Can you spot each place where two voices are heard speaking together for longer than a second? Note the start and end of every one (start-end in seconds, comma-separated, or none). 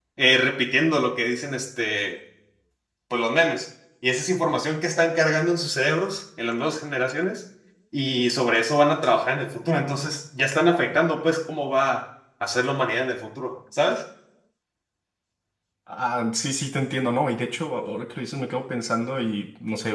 none